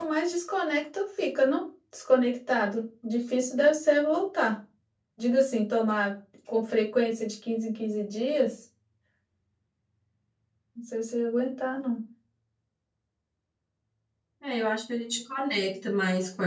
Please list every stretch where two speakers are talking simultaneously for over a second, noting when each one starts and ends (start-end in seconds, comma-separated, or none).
none